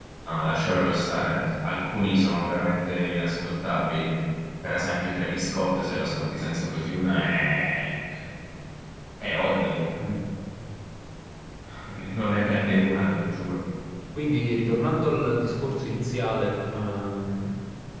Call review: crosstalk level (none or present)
none